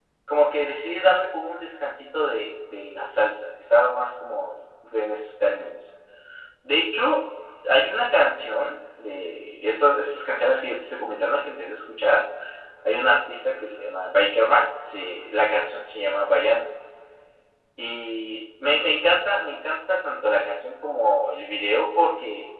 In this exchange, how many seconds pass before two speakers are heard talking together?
none

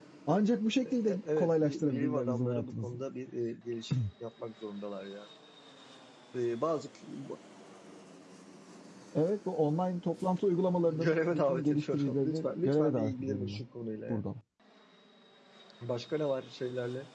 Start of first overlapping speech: 1.1 s

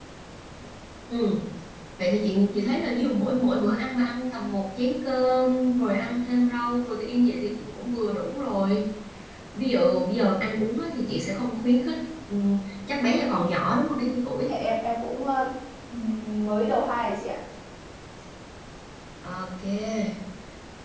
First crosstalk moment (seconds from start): none

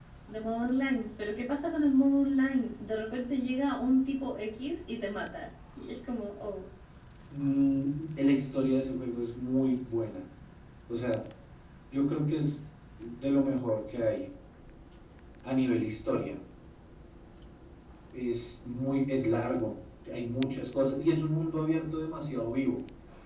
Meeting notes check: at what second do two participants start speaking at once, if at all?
none

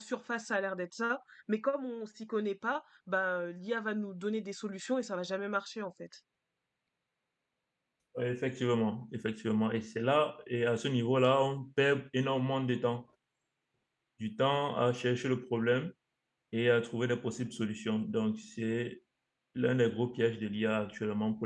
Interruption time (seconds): none

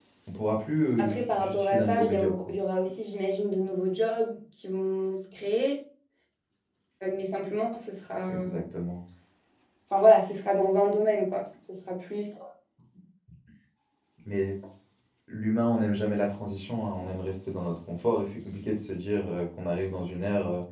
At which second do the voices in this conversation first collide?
1.0 s

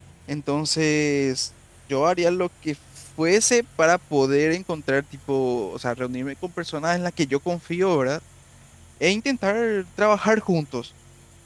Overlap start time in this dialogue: none

